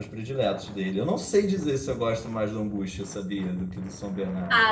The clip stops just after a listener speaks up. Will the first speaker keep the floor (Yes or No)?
No